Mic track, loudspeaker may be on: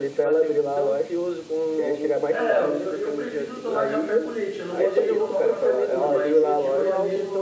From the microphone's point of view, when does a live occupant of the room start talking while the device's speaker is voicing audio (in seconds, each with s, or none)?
2.3 s